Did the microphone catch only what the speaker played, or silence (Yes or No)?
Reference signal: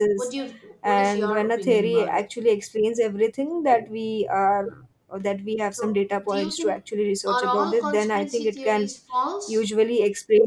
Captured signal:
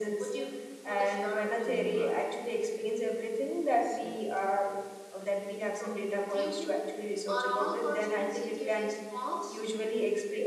No